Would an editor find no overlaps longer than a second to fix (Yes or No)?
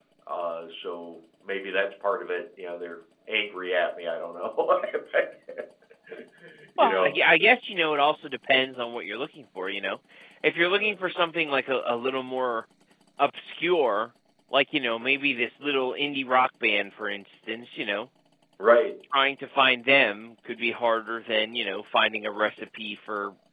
Yes